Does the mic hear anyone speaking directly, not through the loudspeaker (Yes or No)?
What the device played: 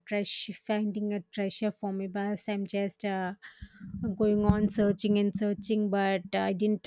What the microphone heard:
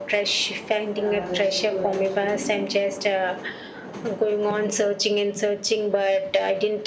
Yes